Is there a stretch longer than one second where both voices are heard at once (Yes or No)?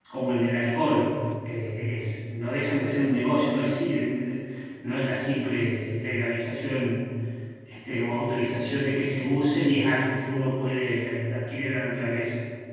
No